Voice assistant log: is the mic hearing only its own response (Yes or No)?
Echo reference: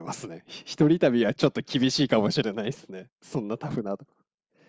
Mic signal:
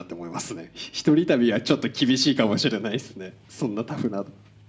Yes